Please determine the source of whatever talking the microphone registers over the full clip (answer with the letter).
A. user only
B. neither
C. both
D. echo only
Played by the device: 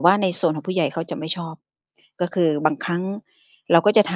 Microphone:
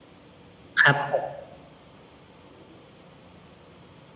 A